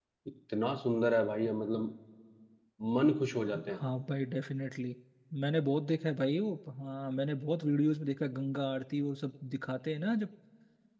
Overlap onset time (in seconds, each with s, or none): none